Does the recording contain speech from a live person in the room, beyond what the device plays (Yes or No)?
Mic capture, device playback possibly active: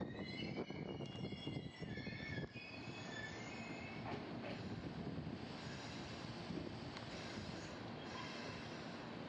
No